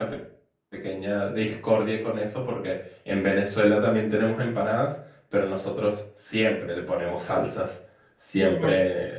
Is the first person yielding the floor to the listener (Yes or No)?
No